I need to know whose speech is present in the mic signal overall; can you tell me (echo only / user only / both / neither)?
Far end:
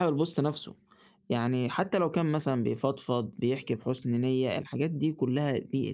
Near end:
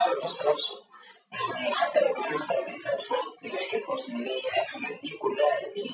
echo only